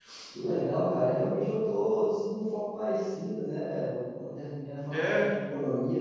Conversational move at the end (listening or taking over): listening